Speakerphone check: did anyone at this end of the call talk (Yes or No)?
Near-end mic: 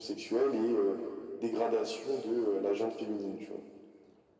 No